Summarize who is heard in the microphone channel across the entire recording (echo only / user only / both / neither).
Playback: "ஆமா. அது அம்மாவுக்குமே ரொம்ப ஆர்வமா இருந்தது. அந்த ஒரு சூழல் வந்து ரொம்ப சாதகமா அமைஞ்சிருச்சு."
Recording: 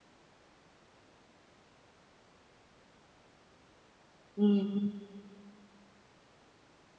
user only